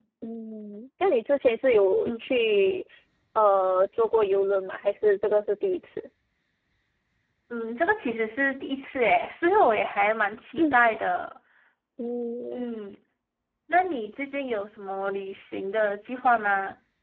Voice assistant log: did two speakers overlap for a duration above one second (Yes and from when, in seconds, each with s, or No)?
No